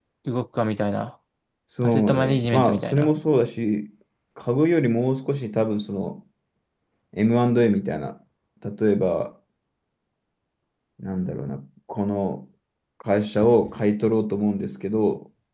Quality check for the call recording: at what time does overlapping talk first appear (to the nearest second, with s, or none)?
2 s